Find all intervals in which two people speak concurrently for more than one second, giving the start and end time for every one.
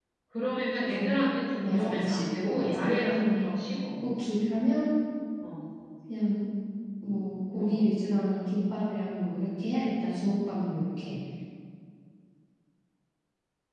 1.6-3.5

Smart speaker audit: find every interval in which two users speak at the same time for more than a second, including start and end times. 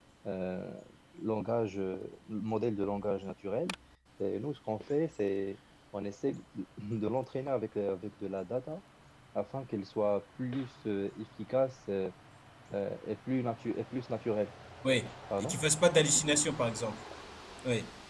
none

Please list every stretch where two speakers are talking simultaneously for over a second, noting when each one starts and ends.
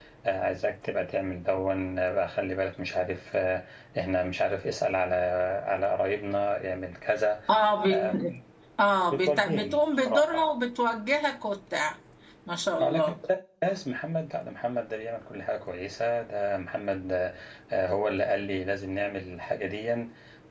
9.1-10.4

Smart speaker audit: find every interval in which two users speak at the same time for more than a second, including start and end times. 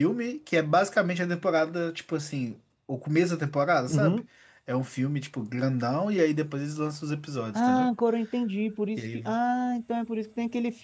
none

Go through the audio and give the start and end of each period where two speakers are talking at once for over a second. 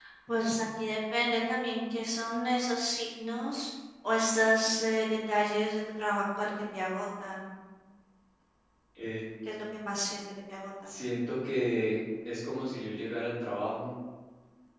none

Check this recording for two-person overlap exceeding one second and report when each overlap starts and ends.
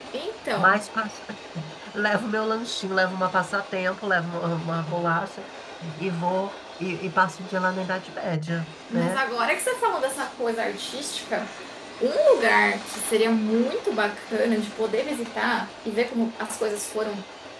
none

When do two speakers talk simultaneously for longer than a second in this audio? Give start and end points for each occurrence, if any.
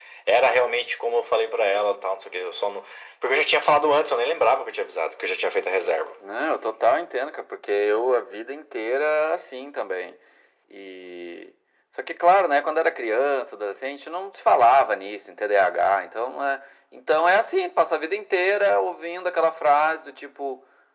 none

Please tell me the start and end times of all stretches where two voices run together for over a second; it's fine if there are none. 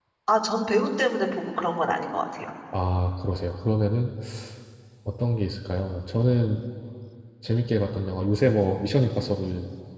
none

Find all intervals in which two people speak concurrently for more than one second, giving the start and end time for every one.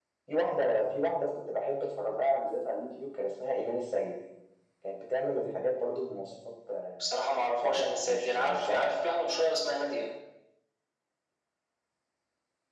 7.6-8.9

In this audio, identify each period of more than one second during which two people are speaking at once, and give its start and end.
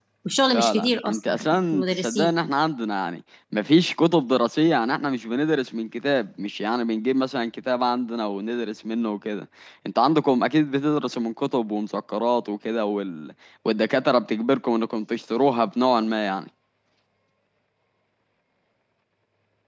0.5-2.3

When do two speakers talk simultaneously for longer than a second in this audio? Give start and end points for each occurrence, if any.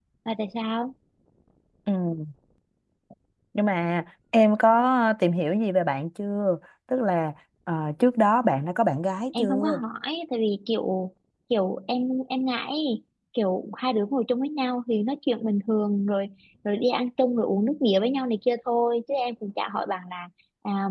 none

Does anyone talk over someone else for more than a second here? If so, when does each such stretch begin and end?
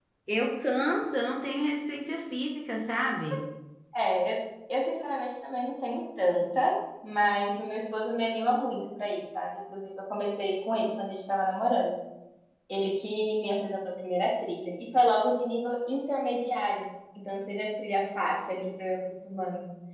none

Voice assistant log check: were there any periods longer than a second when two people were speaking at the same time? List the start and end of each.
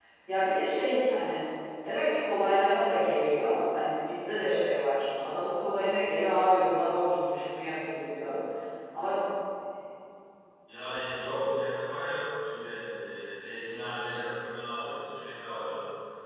none

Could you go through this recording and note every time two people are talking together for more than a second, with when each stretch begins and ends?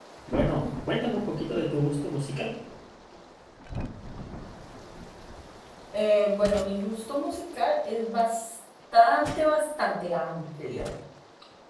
none

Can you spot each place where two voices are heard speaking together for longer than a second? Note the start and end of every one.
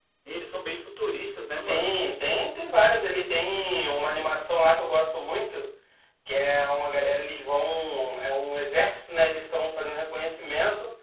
none

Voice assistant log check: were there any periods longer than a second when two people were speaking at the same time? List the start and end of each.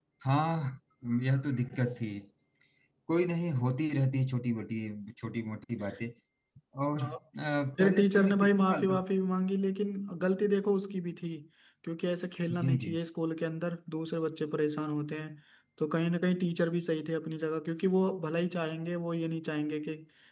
7.8-9.0

